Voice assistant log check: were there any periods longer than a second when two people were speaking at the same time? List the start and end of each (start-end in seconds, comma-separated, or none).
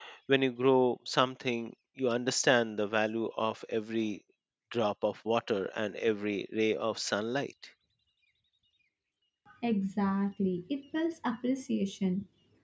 none